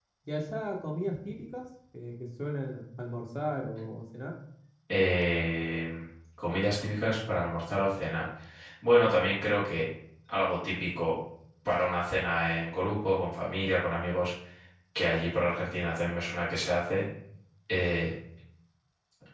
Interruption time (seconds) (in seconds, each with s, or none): none